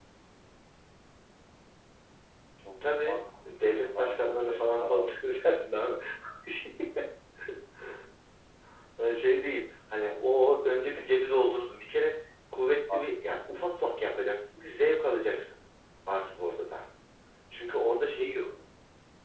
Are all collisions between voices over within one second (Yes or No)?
No